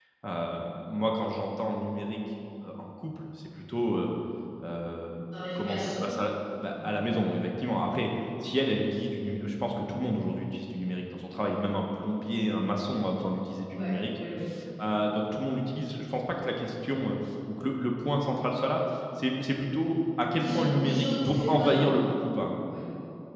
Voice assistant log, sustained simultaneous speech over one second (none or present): present